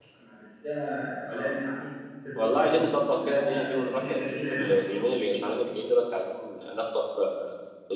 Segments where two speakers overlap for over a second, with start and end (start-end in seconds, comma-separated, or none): 2.4-4.7